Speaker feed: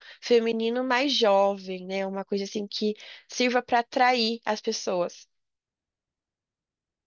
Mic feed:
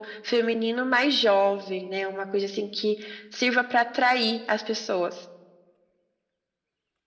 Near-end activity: none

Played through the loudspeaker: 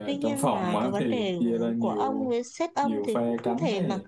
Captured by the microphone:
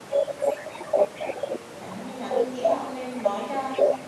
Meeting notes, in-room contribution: present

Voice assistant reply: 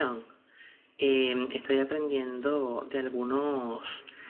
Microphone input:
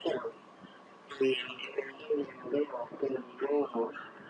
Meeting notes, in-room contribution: none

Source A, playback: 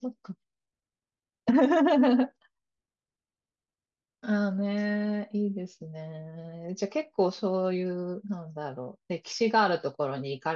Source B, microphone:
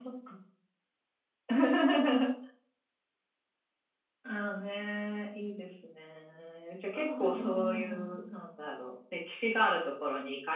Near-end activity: present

